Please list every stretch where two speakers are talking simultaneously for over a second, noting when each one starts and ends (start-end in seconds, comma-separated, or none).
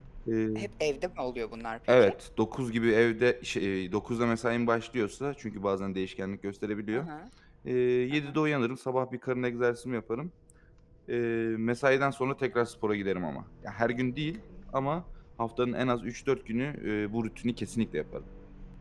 none